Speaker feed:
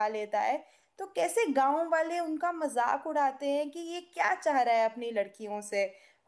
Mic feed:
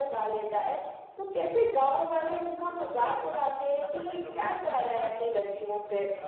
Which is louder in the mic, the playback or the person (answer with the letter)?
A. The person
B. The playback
B